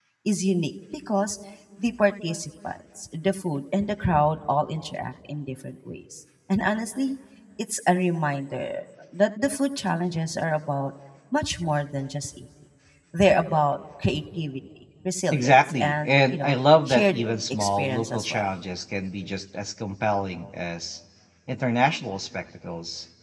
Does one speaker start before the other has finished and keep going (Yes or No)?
Yes